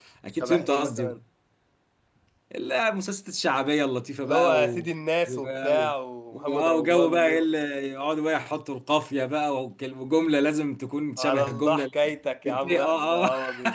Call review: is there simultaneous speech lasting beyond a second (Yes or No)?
Yes